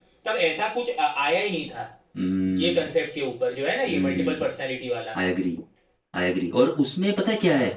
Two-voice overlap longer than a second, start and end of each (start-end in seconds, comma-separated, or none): none